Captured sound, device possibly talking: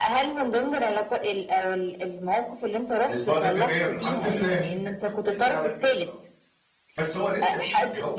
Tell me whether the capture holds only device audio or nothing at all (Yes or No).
No